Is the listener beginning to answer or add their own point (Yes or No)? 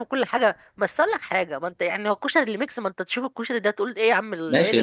Yes